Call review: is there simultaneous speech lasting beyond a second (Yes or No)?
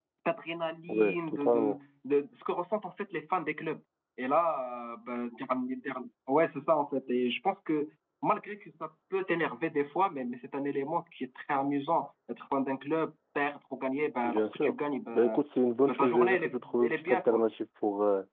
Yes